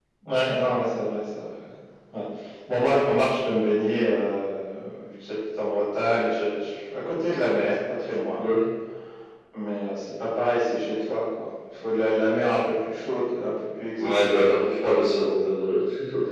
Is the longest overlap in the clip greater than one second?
No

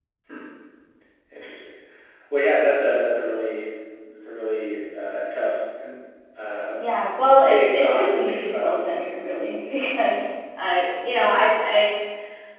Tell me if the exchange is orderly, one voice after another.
No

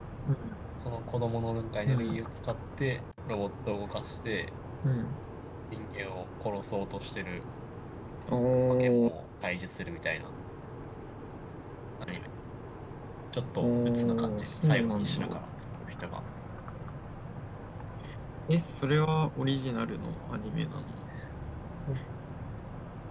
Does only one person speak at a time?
No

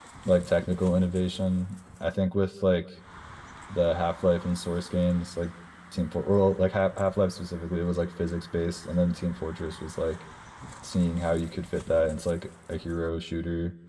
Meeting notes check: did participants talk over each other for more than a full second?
No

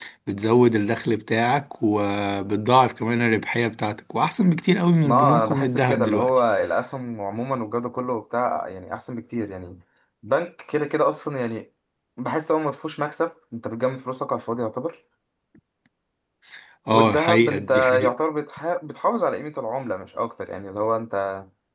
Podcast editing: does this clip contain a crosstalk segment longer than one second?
Yes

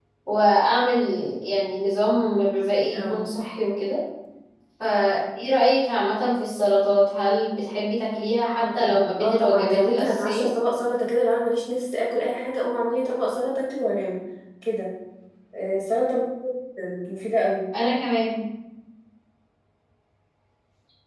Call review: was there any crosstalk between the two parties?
Yes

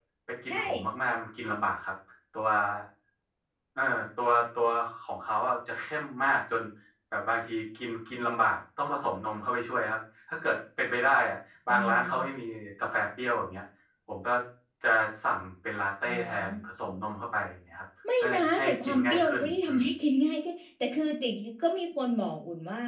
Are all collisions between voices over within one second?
No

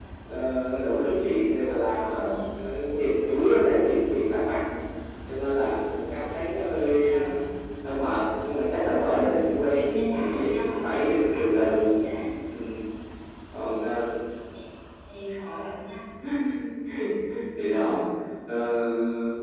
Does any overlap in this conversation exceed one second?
Yes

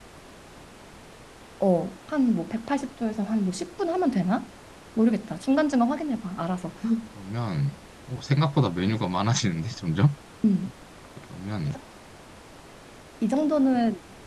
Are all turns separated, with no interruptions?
Yes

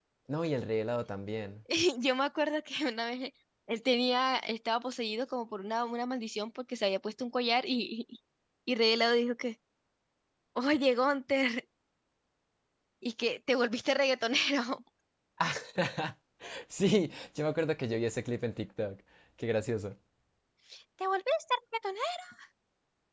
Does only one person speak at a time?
Yes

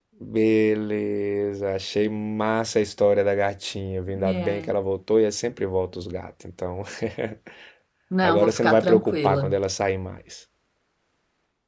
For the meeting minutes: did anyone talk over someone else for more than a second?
Yes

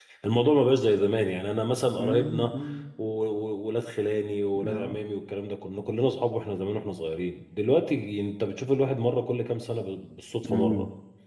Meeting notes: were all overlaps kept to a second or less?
Yes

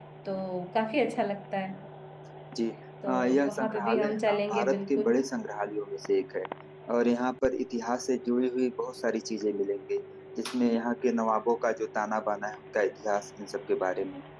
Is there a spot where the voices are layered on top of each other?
Yes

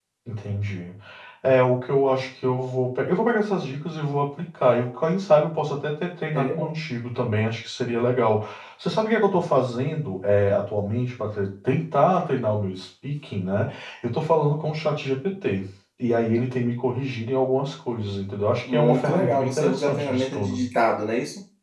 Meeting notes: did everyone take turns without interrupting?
No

